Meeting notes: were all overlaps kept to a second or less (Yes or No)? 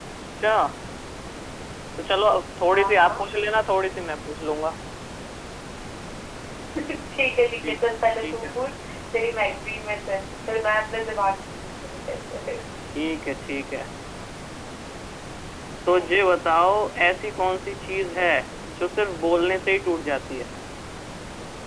Yes